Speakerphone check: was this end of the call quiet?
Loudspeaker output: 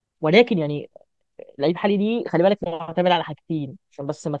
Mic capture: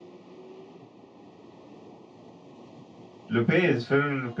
No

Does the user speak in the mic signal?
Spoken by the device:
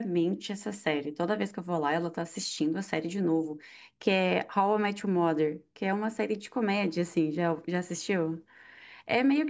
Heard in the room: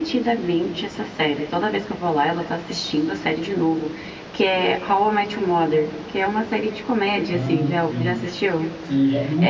Yes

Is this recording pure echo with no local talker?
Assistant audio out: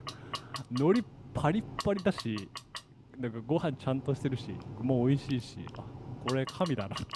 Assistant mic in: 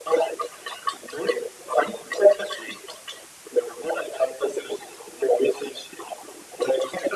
Yes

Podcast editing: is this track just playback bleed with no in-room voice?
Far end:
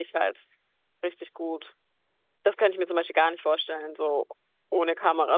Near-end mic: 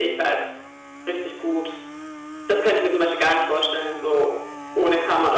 Yes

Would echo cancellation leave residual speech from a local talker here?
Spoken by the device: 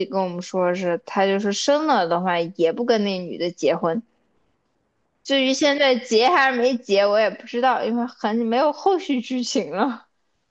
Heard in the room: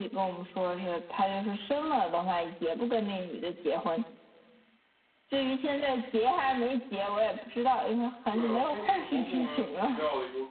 Yes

